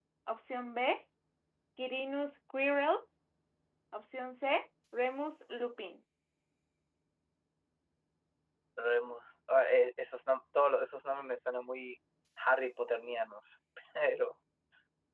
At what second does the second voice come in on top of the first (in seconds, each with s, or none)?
none